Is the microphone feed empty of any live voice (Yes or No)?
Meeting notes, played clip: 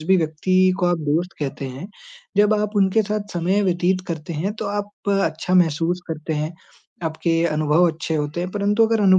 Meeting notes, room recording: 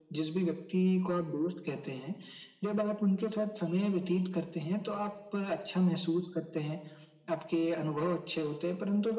Yes